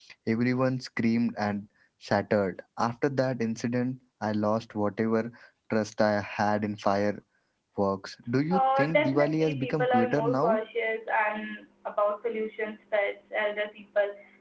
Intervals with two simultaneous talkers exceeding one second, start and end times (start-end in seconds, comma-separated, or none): 8.5-10.6